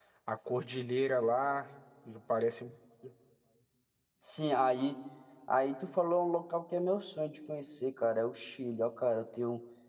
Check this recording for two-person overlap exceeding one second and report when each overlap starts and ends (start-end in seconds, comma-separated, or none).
none